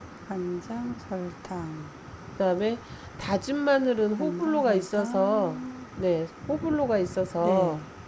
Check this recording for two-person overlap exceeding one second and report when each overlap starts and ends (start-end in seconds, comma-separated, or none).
4.1-5.6